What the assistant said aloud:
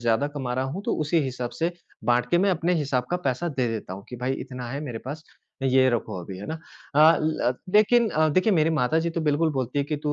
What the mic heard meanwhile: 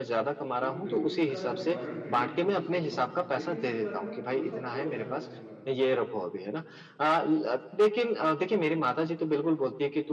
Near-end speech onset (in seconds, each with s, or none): 0.6 s